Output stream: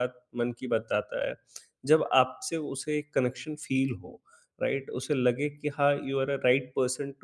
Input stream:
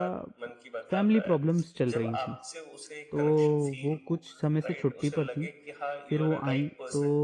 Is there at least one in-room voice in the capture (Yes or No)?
Yes